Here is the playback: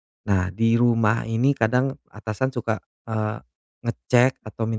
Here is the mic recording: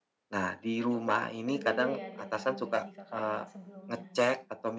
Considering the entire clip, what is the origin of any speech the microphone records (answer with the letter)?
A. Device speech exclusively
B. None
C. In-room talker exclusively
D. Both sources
D